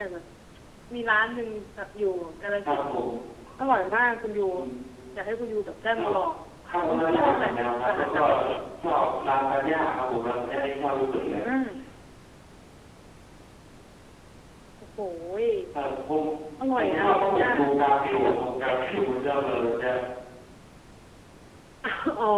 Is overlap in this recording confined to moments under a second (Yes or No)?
No